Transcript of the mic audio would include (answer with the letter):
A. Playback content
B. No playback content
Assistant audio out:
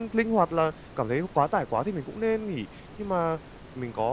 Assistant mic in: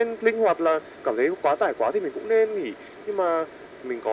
A